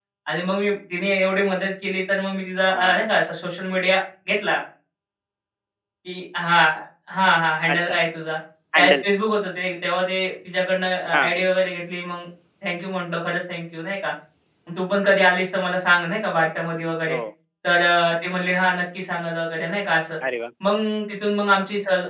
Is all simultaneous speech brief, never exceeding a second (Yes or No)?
Yes